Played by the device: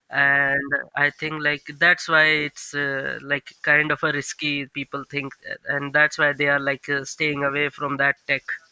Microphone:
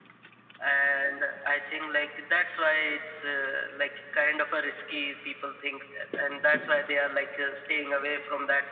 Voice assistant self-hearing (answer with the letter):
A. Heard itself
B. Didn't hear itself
A